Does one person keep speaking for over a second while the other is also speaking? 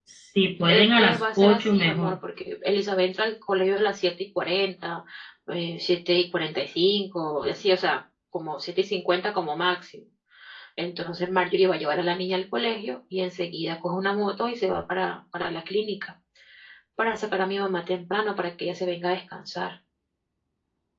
Yes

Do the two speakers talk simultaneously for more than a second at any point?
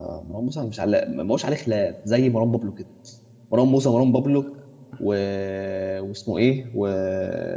No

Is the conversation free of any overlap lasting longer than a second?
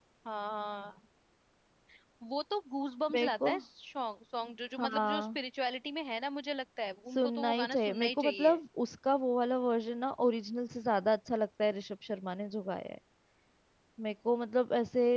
No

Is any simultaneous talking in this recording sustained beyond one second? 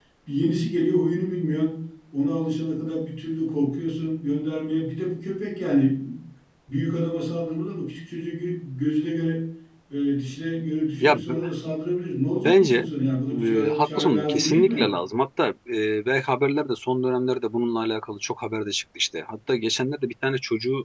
Yes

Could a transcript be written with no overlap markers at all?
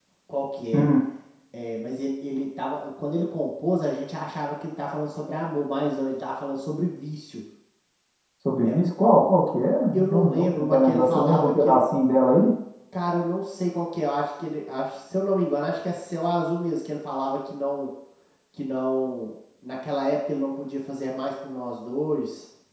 No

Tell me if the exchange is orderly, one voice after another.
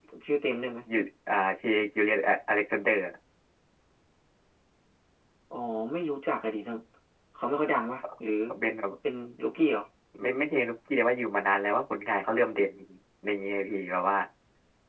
Yes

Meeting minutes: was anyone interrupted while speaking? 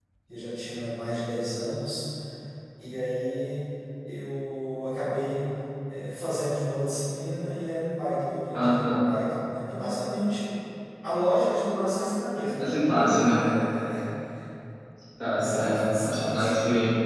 Yes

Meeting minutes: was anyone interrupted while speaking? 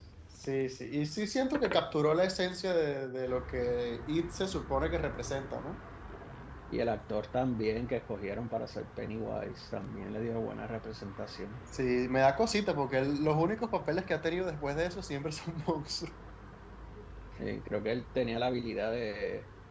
No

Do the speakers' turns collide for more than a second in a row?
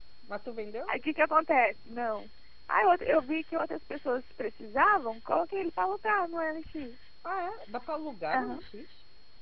No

